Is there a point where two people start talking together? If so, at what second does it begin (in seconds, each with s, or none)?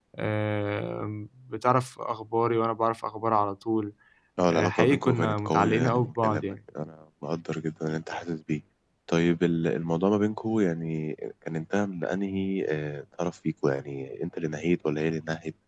4.5 s